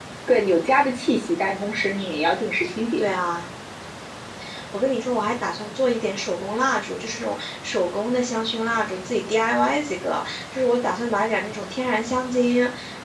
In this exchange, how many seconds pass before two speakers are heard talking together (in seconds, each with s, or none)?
none